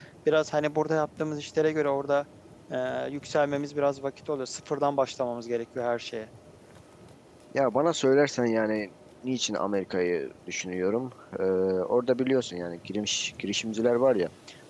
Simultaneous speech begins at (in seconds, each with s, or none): none